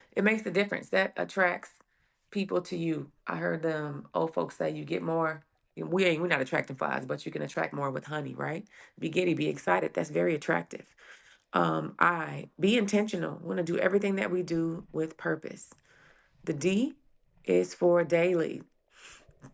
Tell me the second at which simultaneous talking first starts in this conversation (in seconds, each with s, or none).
none